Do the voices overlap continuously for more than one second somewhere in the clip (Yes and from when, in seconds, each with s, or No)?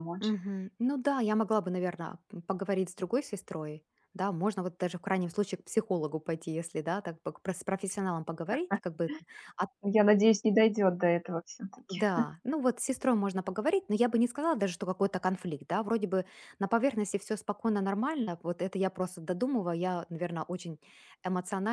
No